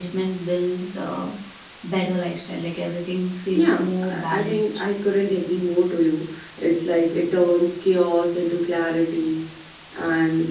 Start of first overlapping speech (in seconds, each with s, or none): 3.5 s